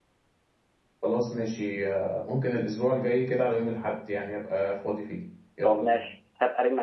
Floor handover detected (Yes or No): Yes